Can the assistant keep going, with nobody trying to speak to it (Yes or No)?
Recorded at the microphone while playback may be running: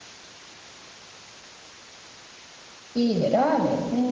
No